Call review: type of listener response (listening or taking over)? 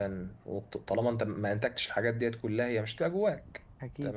listening